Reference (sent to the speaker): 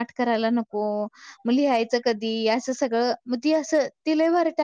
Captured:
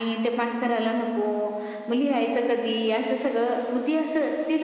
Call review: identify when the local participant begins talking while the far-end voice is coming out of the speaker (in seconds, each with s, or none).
none